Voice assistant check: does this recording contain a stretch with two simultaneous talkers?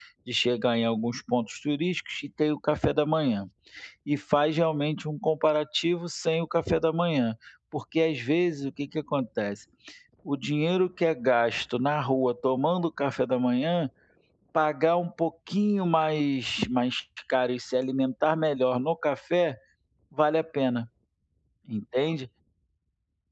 No

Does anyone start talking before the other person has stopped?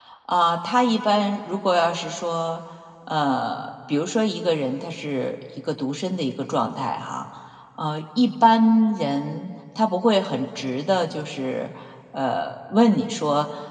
No

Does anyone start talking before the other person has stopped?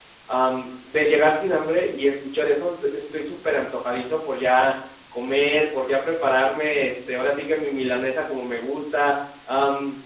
No

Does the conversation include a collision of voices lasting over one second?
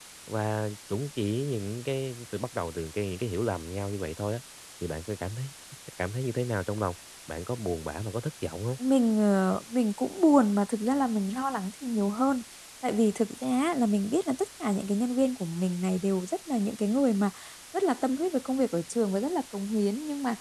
No

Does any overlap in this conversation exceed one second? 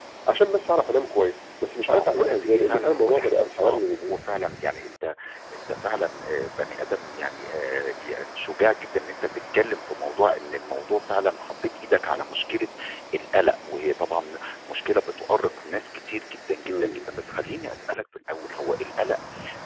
Yes, from 1.9 s

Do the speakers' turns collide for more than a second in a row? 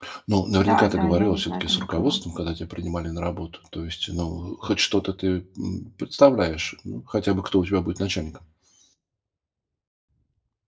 Yes, from 0.6 s

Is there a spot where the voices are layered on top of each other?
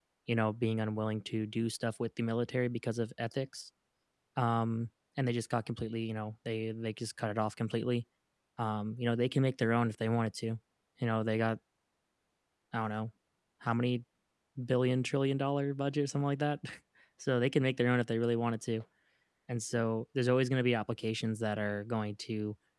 No

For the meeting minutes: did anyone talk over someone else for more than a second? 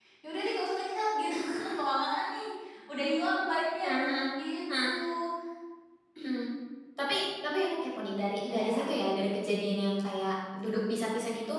No

